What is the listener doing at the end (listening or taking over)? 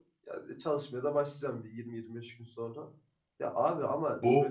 listening